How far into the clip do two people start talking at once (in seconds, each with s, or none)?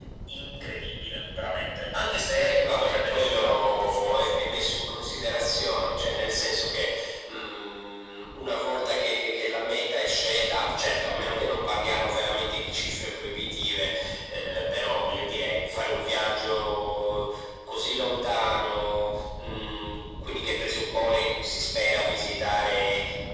2.3 s